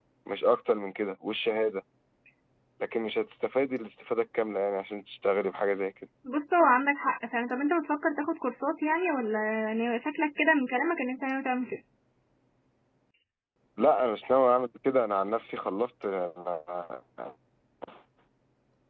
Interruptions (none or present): none